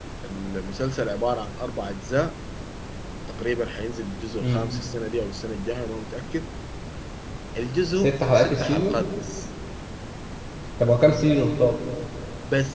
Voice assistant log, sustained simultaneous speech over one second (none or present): present